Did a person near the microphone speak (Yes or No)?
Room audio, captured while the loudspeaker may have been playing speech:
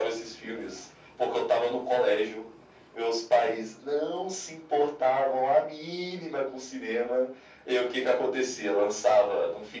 No